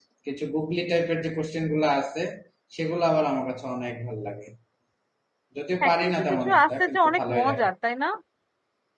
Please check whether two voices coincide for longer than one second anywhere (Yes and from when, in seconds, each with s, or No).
Yes, from 5.8 s